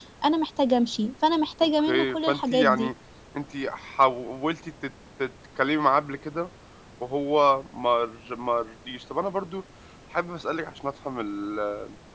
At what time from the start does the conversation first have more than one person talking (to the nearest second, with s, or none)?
2 s